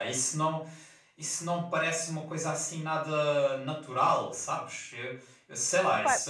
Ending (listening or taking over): listening